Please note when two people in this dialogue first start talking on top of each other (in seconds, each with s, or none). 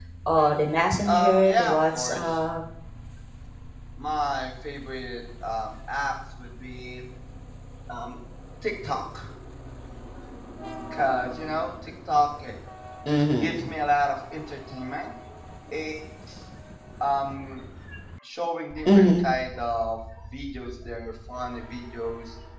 1.1 s